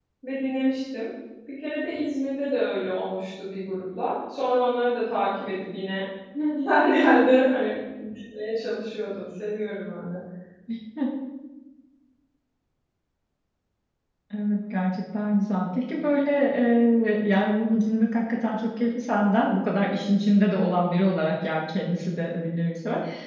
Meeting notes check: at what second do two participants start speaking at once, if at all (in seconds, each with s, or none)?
none